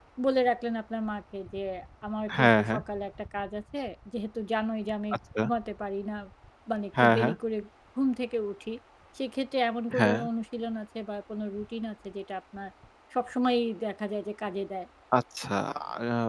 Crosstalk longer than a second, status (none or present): none